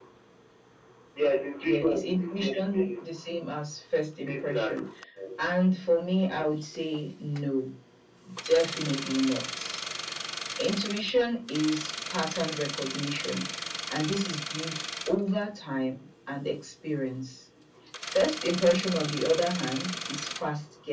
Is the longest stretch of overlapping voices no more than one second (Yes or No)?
No